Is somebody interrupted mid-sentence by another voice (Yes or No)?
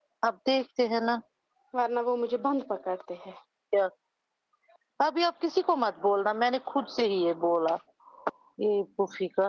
No